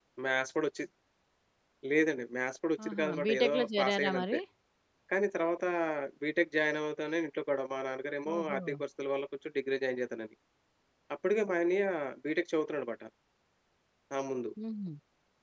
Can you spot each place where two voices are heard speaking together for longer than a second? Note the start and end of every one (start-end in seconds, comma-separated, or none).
2.9-4.4